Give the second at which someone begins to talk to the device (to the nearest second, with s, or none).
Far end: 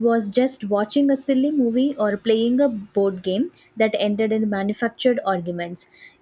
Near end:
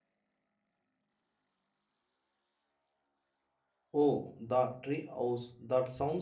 4 s